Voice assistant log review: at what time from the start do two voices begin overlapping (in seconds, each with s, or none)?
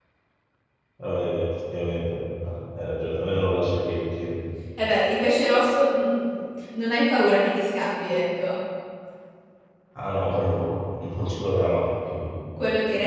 none